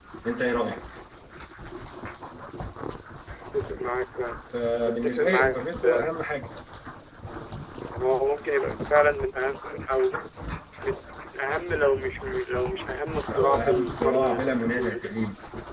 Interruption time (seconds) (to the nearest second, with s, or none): 5 s